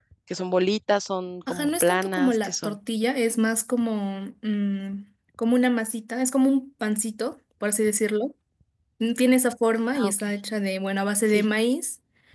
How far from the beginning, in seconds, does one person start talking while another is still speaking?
1.5 s

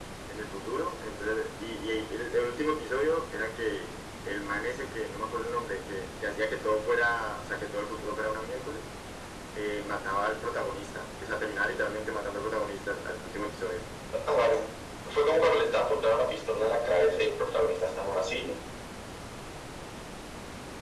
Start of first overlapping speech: none

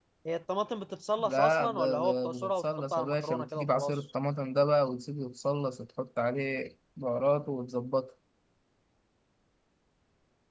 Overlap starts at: 1.2 s

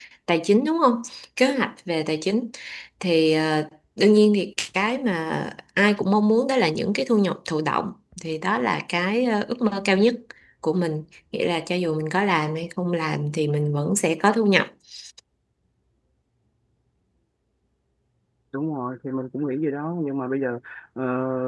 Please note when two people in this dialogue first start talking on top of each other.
none

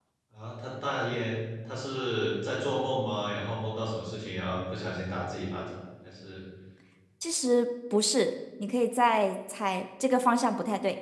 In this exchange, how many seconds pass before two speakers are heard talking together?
none

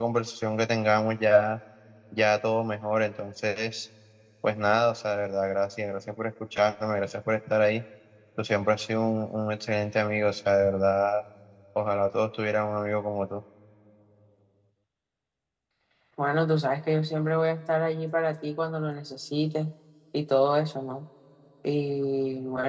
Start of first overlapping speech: none

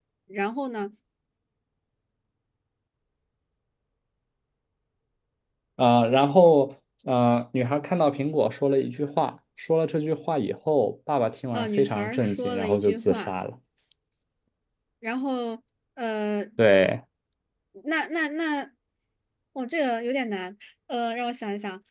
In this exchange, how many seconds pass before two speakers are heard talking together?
11.5 s

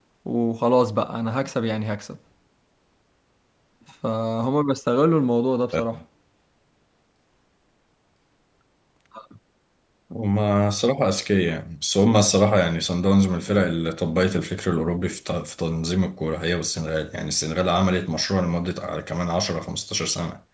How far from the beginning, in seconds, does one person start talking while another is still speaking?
none

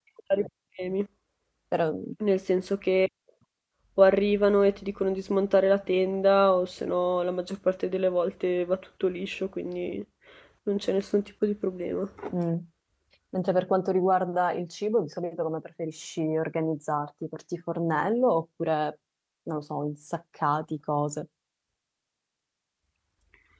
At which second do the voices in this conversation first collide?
none

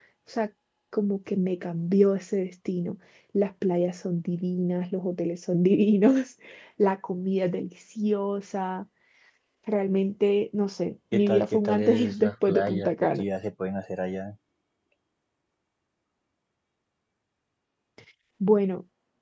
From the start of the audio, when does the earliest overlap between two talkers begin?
11.1 s

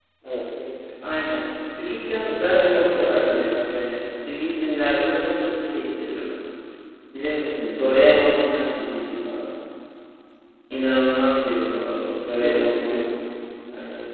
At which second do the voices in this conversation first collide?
2.4 s

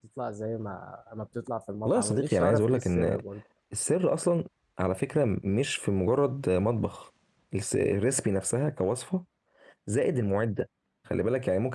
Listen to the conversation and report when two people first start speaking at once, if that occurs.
1.9 s

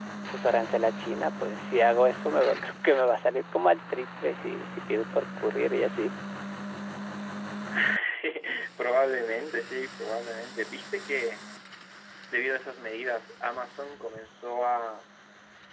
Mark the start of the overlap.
none

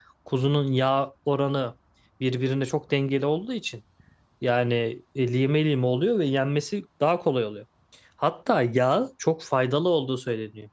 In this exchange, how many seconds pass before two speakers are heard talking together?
none

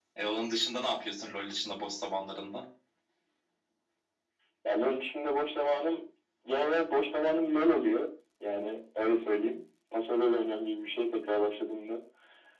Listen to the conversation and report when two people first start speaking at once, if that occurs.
none

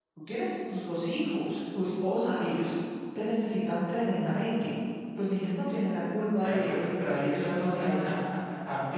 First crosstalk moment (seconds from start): 6.4 s

